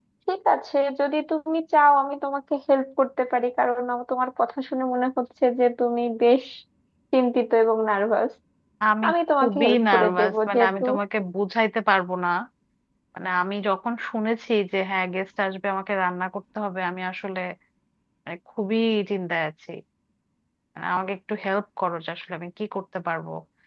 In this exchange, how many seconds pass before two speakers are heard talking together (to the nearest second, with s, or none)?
9 s